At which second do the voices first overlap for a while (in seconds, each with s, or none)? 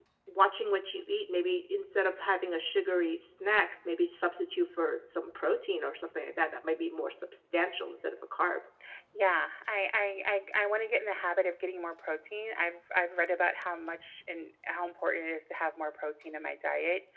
none